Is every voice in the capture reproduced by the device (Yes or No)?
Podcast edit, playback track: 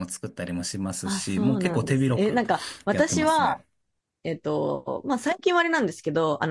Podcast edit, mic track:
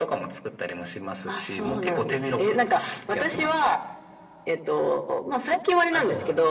No